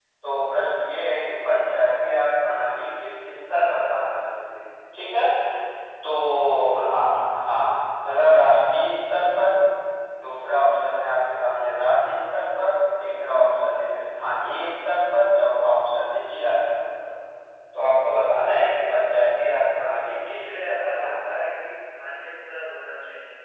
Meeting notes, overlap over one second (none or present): present